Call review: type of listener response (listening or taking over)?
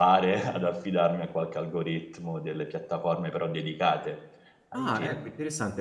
taking over